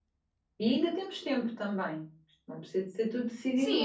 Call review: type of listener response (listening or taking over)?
taking over